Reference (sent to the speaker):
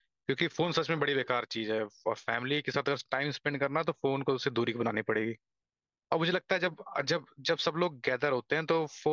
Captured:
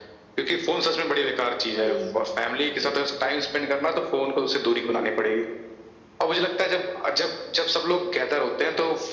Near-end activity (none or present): present